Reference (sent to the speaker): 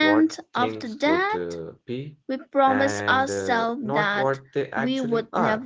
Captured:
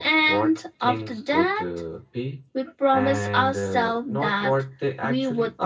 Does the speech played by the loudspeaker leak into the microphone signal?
Yes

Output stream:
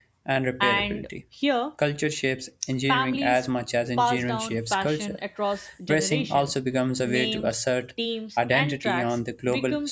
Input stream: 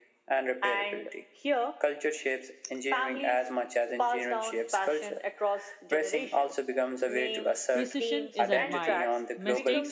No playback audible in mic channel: No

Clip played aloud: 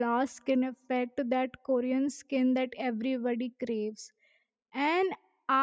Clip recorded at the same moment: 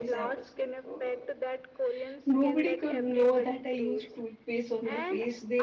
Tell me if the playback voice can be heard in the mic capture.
Yes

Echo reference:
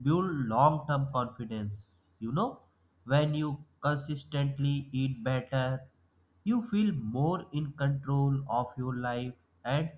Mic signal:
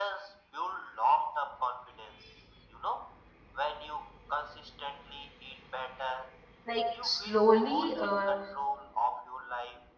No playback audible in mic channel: No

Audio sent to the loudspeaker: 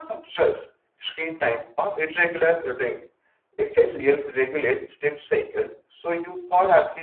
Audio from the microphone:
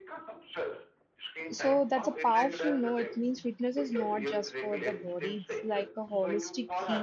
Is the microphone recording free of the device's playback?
No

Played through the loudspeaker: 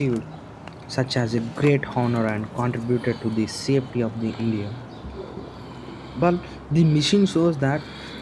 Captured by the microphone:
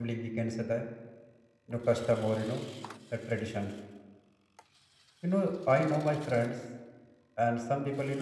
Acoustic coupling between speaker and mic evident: No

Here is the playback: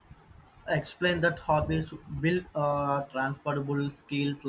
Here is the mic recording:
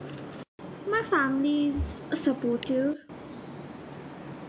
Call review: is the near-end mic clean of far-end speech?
Yes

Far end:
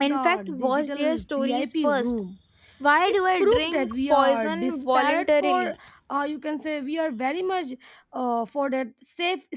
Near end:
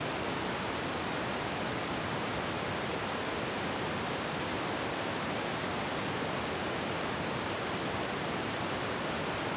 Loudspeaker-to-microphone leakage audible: No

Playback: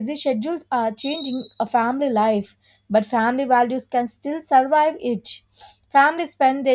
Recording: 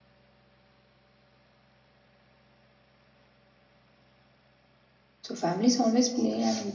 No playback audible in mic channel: Yes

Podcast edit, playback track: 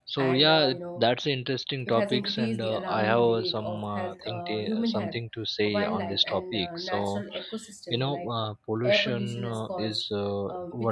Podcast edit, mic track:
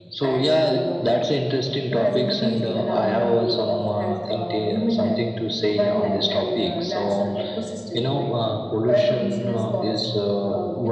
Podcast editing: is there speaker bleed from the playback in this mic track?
Yes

